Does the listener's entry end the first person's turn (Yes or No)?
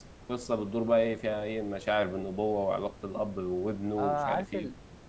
Yes